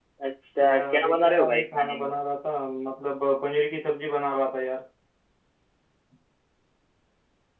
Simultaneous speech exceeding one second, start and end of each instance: 0.6-2.1

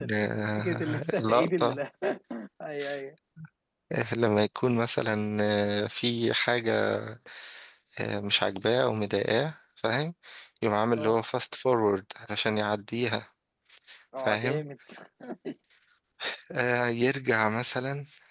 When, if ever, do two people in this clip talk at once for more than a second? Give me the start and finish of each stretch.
0.6-1.8

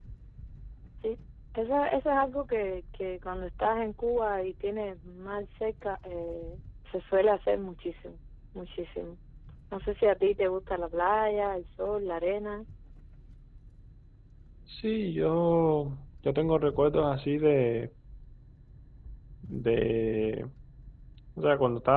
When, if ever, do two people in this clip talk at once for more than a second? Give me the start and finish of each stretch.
none

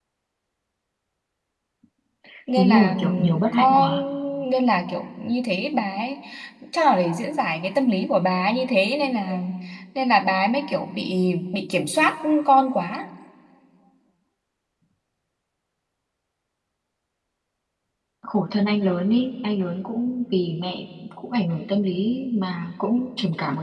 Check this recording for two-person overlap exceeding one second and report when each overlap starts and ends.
2.6-3.9

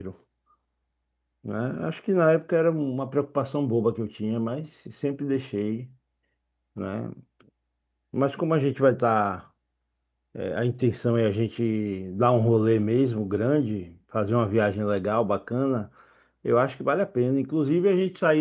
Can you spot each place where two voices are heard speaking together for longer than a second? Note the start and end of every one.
none

